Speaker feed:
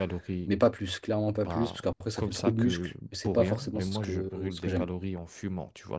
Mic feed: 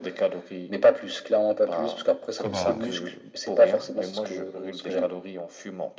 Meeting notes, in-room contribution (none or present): present